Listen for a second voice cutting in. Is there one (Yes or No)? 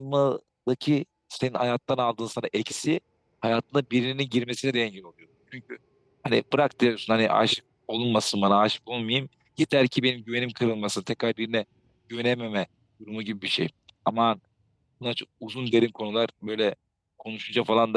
No